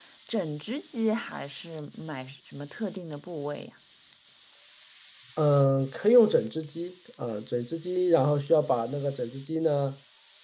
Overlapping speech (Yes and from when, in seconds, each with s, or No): No